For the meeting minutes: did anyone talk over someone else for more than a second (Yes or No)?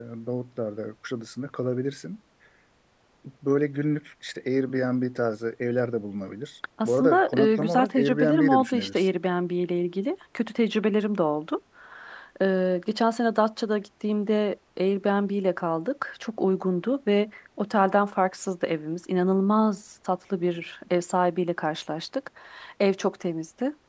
Yes